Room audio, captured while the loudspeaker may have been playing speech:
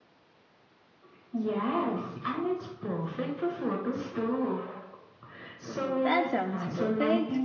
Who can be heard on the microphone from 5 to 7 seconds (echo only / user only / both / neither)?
both